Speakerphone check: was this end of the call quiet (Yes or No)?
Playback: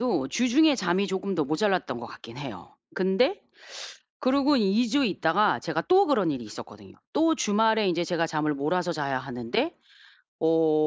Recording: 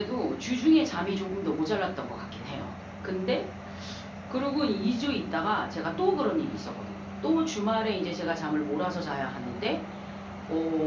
Yes